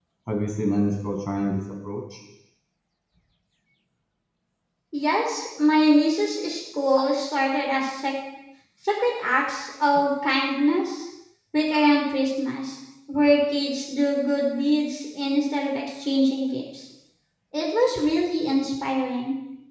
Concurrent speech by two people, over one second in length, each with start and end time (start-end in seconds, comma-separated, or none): none